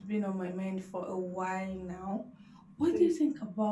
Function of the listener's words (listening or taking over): listening